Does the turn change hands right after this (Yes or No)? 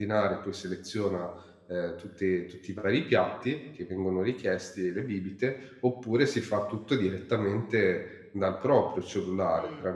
No